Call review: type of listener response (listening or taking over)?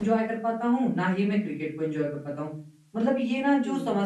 listening